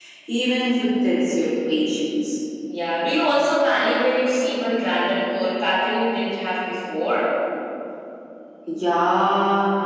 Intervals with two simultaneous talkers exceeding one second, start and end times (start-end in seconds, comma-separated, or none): none